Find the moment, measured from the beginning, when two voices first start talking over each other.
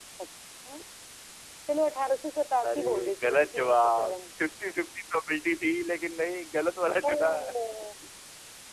2.6 s

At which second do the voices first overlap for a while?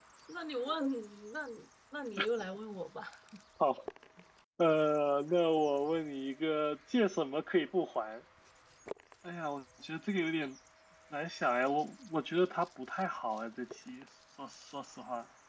none

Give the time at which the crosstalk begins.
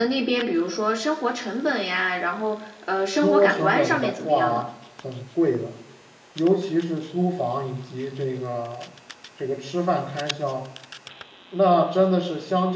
3.1 s

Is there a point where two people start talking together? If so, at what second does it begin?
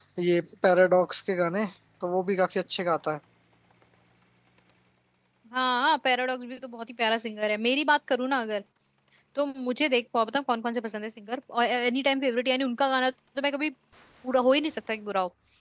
none

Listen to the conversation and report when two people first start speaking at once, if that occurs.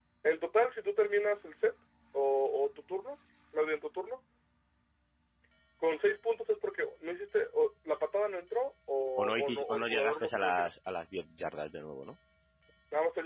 9.2 s

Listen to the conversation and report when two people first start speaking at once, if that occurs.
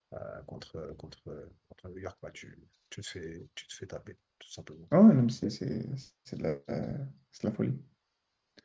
none

